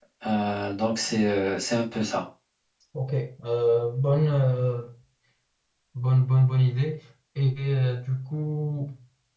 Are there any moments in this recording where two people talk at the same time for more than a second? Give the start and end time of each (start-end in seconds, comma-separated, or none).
none